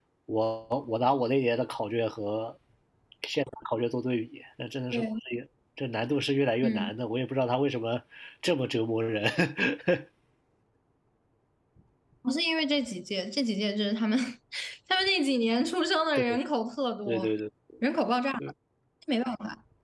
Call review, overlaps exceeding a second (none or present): none